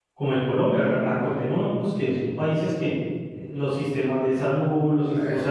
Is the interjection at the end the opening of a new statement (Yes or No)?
No